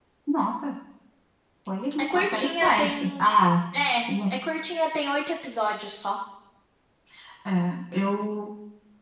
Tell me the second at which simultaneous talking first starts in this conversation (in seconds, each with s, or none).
2.0 s